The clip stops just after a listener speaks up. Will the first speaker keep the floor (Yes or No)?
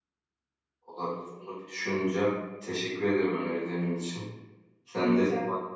Yes